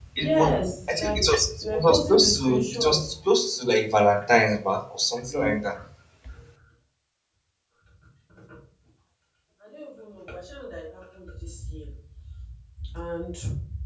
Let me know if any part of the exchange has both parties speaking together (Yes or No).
Yes